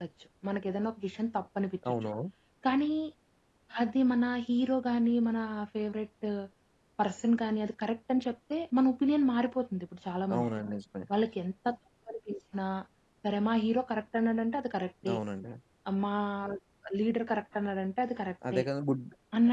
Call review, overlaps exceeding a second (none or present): none